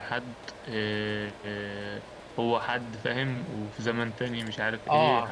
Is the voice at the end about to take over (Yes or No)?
Yes